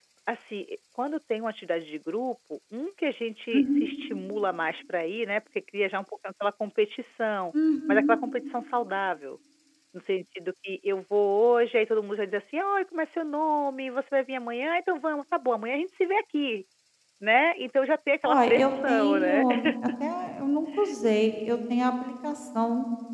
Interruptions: present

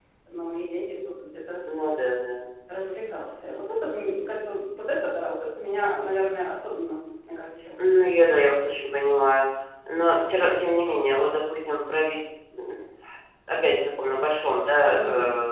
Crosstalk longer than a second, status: none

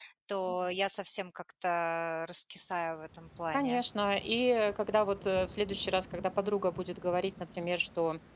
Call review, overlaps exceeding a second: none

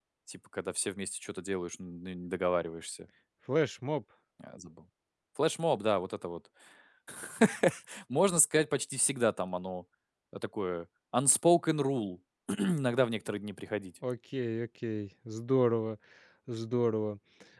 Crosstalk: none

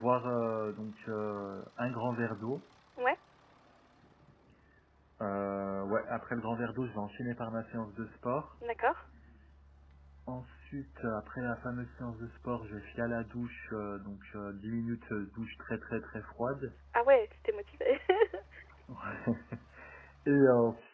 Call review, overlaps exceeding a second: none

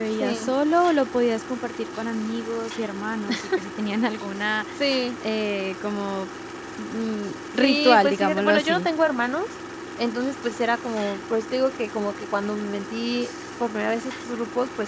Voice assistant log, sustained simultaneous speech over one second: present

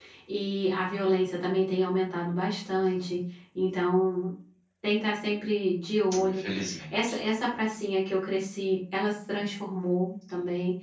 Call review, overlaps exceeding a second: none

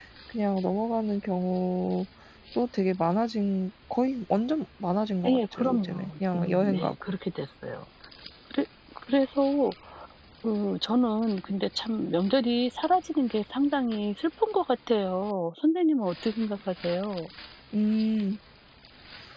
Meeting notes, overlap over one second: present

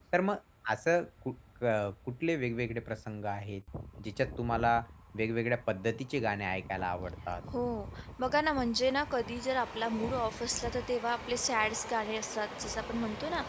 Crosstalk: none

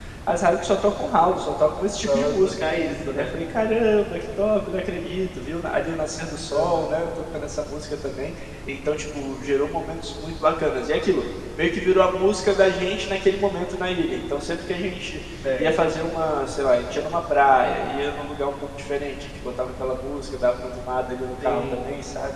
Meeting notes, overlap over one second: none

